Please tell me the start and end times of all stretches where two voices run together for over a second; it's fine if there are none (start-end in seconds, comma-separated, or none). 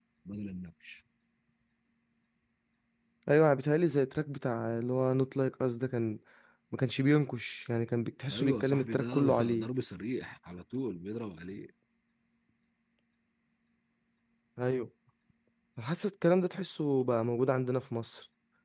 8.3-9.7